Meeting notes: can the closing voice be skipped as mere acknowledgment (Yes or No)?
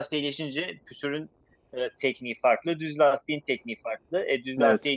Yes